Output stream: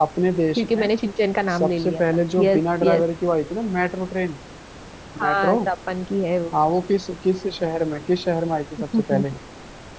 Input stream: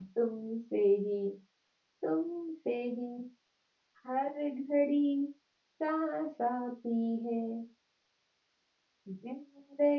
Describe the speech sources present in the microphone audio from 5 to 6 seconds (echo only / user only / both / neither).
user only